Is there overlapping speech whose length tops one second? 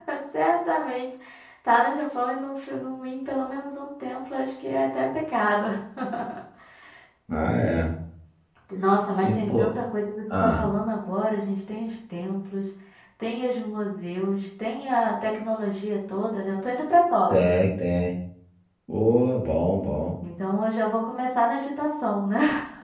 No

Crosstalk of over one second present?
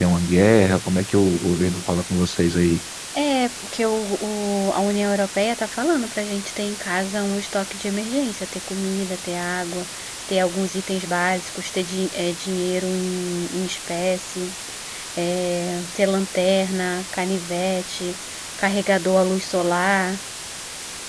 No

